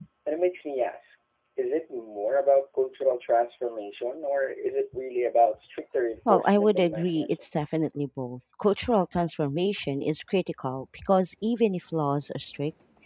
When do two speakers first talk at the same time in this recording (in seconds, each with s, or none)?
6.3 s